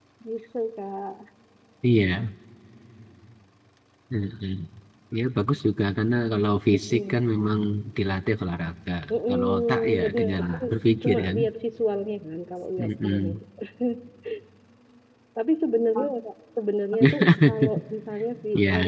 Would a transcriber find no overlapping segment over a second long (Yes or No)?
No